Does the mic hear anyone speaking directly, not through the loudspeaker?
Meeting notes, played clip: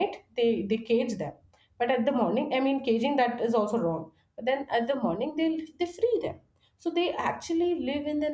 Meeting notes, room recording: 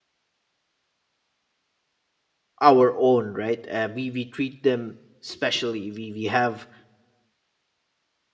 Yes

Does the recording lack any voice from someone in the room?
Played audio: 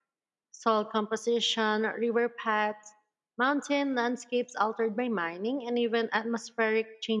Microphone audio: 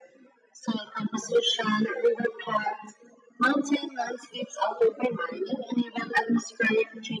Yes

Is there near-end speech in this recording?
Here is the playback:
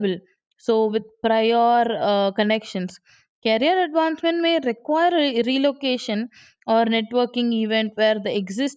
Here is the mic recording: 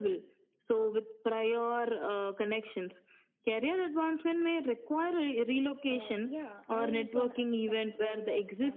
Yes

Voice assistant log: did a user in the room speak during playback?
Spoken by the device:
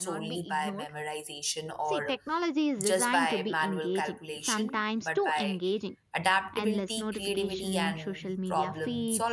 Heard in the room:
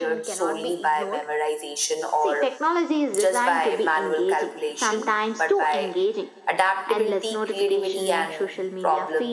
No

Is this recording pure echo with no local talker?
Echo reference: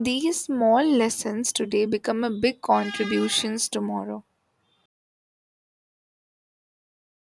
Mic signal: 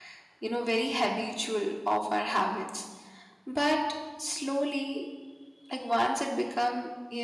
No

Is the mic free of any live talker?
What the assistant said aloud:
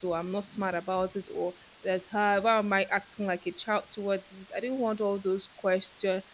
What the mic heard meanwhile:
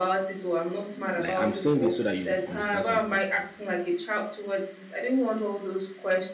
No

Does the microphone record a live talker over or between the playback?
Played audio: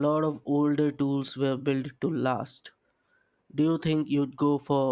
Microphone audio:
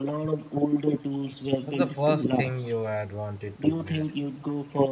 Yes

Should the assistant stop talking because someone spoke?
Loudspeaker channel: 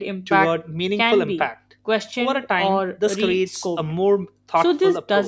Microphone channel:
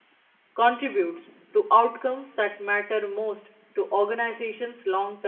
Yes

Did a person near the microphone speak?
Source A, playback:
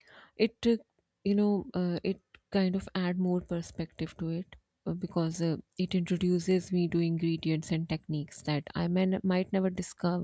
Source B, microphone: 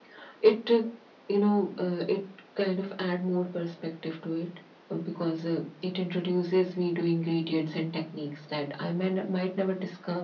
No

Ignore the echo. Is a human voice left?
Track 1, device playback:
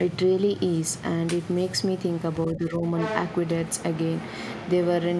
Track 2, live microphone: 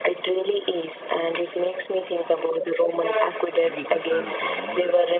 Yes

